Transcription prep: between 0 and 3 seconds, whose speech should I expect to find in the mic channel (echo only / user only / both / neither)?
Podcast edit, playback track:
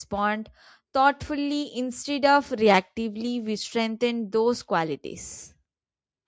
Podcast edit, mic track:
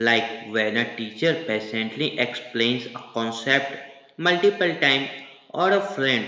user only